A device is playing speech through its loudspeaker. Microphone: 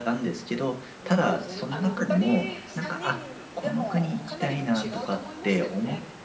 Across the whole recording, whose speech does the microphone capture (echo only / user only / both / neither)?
both